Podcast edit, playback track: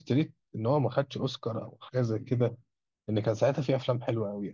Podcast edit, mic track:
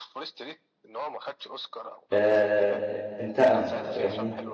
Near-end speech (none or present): present